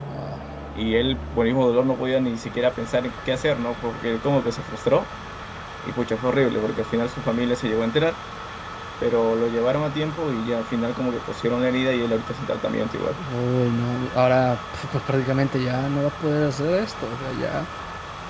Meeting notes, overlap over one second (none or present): none